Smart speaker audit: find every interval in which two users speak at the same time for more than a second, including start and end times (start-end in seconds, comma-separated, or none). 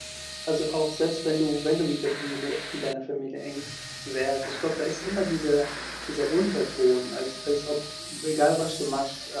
none